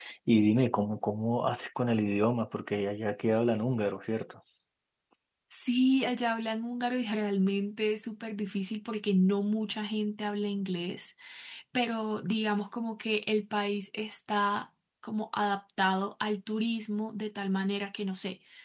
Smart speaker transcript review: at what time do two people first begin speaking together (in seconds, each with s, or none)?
none